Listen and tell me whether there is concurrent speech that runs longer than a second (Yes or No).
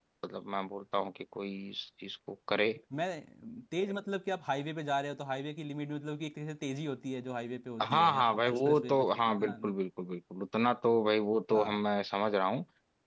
Yes